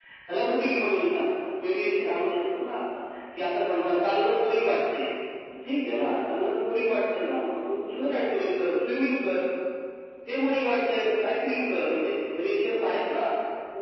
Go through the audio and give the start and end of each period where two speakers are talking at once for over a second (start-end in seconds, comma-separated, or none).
none